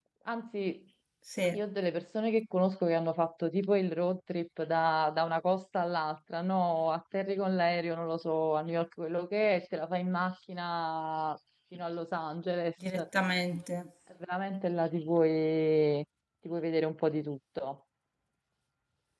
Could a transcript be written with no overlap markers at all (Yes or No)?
Yes